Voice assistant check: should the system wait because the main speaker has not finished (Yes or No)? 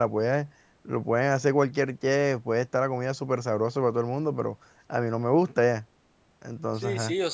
No